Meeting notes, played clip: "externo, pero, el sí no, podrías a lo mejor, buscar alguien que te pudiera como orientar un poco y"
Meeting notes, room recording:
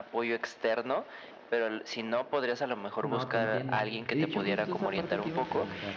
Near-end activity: present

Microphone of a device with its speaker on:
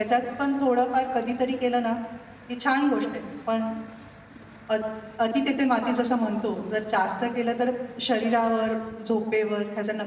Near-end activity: none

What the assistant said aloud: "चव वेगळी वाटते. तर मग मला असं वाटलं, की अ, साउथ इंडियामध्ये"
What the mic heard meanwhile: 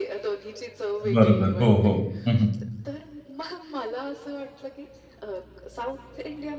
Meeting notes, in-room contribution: present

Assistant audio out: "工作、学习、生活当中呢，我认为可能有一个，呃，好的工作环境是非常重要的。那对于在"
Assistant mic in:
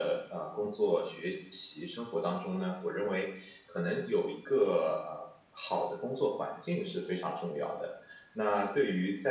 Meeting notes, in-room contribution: none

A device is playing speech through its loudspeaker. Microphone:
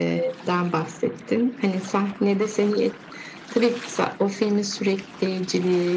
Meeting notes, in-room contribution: none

